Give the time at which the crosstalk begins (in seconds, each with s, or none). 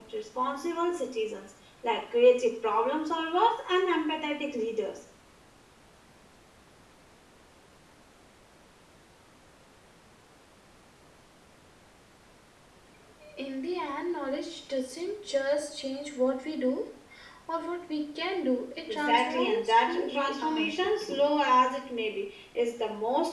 18.9 s